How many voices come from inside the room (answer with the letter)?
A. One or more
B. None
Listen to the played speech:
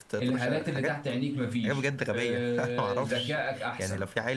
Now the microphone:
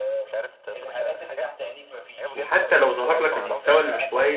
A